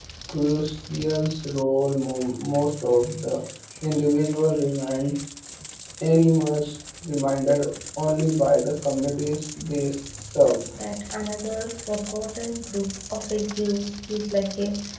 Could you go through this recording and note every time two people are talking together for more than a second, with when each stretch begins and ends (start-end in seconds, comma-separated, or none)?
none